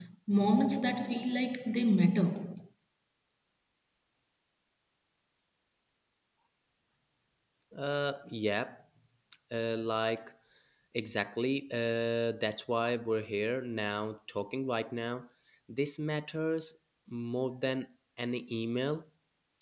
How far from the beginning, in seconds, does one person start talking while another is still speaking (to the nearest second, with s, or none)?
none